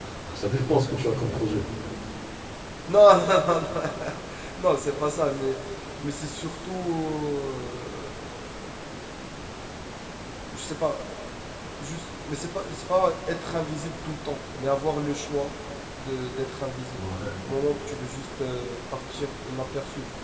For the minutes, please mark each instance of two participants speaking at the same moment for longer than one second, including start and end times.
none

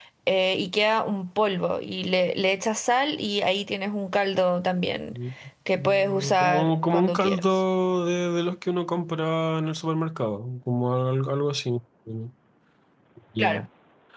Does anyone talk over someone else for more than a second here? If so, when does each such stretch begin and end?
5.8-7.6

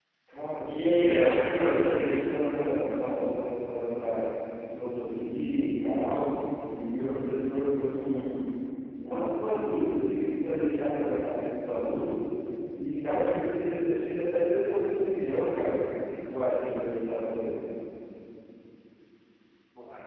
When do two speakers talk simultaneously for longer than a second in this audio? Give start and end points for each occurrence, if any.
0.7-2.2

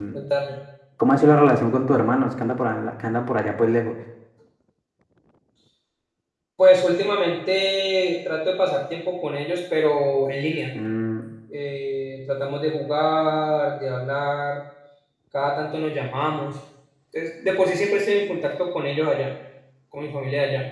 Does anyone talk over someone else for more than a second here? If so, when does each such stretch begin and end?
none

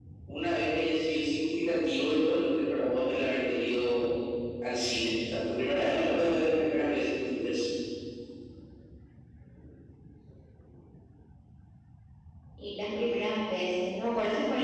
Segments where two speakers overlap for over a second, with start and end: none

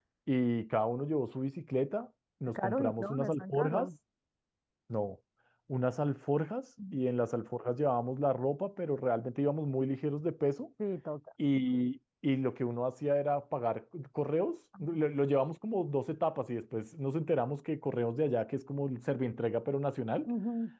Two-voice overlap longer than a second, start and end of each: 2.5-3.9

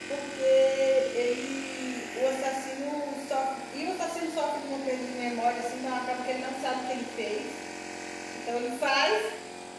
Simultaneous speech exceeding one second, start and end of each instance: none

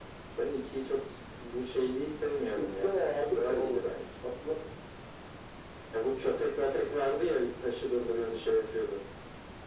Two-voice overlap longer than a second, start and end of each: 2.5-3.9

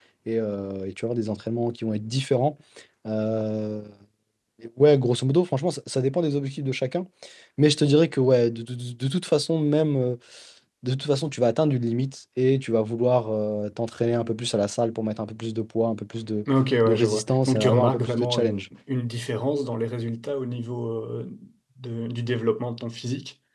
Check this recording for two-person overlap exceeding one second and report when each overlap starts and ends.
16.9-18.6

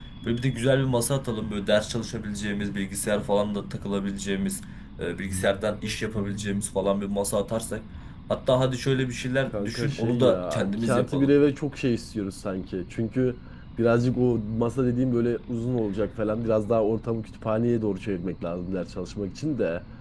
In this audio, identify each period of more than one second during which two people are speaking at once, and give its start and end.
9.5-11.3

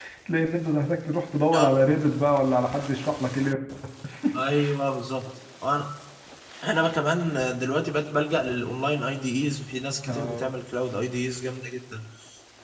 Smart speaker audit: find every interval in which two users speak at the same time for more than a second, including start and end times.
none

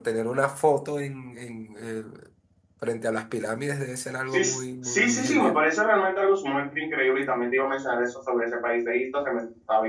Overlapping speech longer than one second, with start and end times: 4.3-5.6

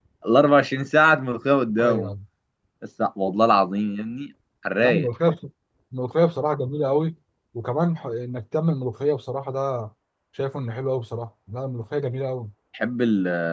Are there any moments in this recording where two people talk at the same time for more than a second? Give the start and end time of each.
none

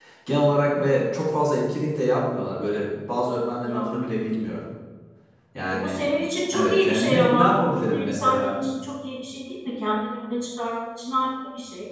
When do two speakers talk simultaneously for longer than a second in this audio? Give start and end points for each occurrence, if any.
6.5-8.6

